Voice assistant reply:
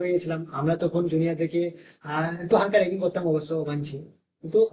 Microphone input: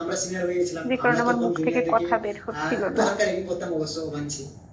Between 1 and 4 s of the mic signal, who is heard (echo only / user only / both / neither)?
both